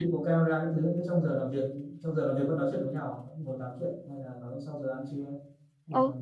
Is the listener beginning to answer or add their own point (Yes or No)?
Yes